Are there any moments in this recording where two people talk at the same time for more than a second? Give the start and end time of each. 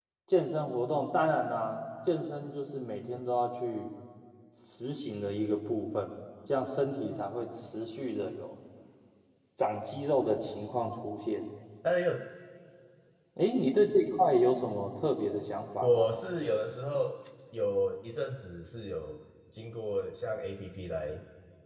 none

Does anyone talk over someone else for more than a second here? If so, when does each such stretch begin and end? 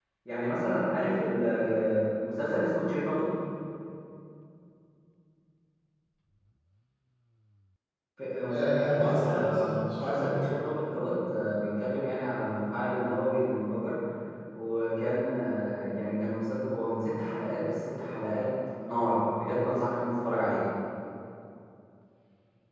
8.5-10.5

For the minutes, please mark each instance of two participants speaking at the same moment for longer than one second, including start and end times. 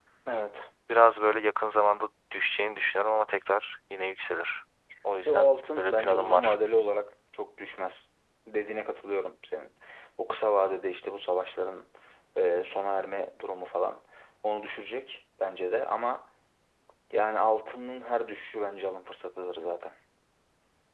5.2-6.6

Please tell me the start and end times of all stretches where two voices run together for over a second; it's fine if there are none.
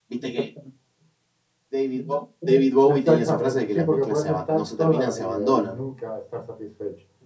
2.8-5.8

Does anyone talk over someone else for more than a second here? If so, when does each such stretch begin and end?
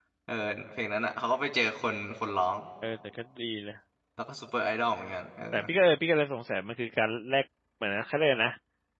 none

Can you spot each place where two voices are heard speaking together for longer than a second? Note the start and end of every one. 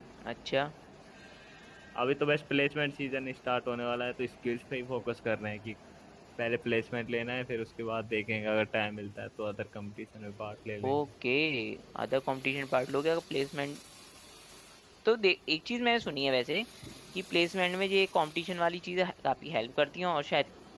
none

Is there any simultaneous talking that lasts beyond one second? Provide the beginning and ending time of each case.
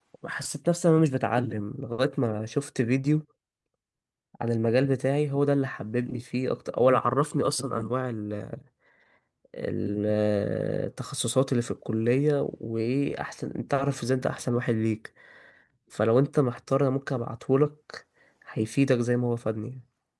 none

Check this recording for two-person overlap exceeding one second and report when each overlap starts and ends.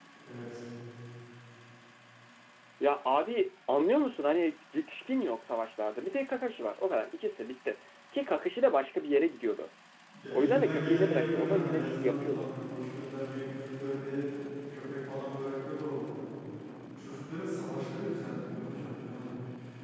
10.3-12.5

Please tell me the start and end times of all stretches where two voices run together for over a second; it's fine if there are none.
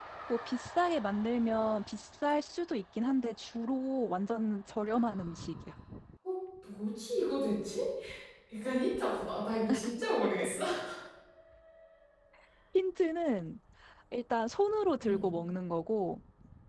none

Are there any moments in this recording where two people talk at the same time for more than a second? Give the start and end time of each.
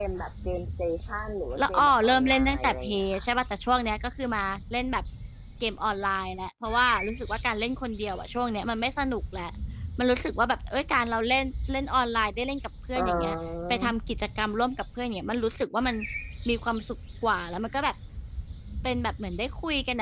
1.6-3.2

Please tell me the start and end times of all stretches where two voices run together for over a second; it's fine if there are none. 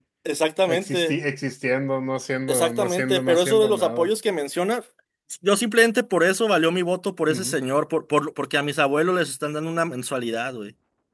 2.5-4.1

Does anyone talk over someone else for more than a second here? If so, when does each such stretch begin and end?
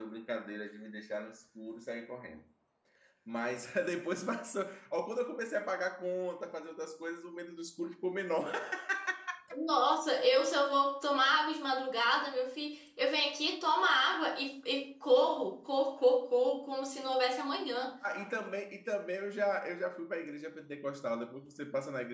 none

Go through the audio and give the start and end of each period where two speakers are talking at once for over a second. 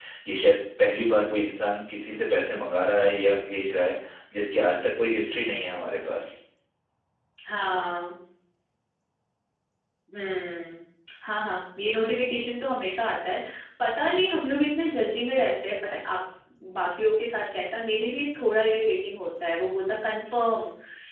none

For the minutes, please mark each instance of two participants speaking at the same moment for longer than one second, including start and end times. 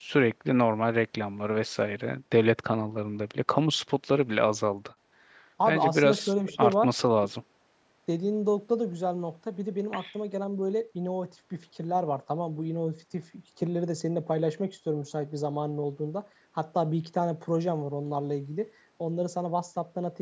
5.7-6.9

